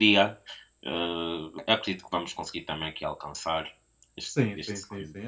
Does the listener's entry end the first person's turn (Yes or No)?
Yes